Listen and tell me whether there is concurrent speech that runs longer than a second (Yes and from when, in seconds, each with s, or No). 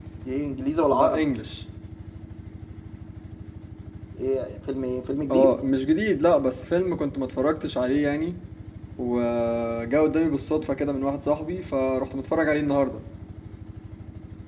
No